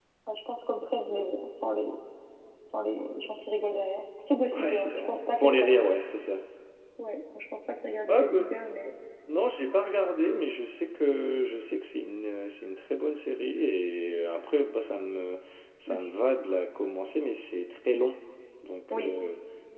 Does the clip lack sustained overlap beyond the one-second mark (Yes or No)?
No